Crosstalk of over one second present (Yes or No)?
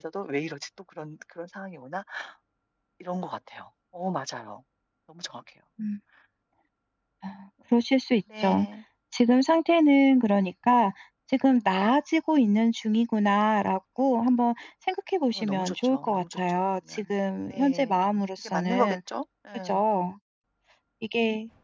Yes